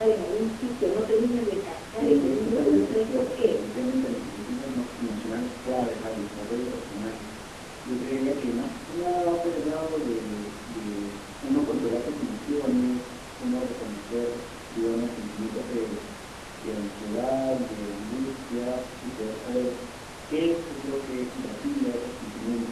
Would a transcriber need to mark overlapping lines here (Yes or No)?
Yes